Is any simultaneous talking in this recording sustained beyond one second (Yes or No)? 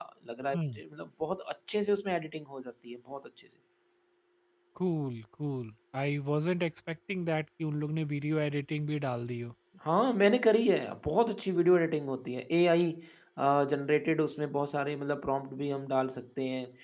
No